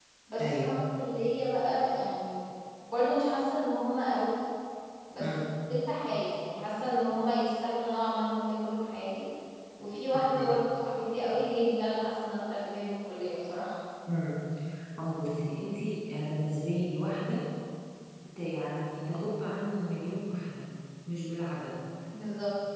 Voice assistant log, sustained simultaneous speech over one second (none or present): none